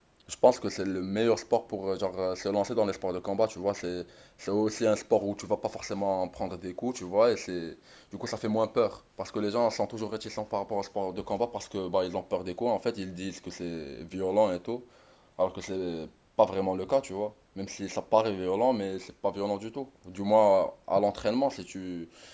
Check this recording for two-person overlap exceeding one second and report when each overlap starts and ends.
none

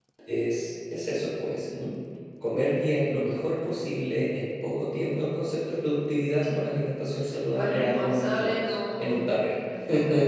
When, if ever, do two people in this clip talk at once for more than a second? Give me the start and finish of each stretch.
7.6-9.3

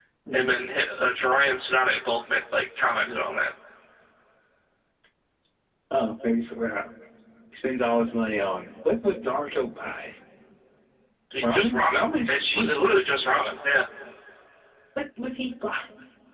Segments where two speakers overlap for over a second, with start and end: 11.5-12.8

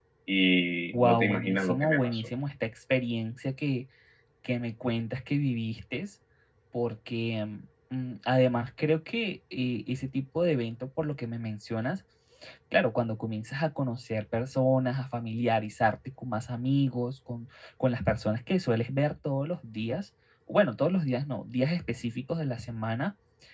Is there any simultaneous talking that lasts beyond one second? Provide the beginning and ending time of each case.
0.9-2.3

